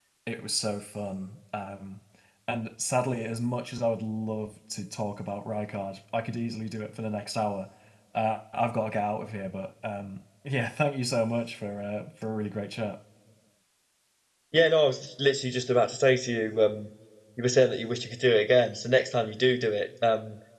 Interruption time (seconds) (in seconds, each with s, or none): none